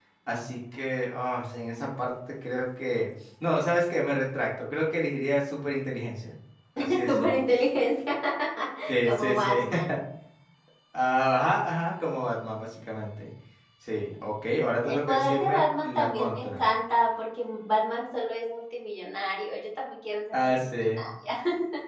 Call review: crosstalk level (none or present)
present